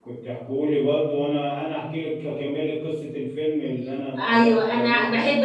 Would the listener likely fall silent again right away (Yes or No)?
No